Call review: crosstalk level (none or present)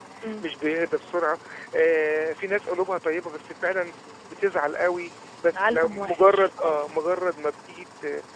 present